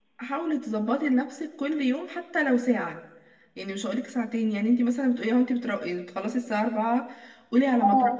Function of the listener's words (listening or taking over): listening